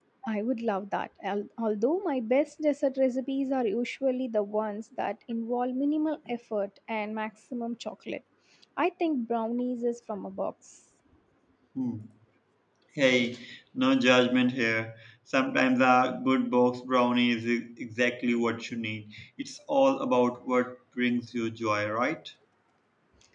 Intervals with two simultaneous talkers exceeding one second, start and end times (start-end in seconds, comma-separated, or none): none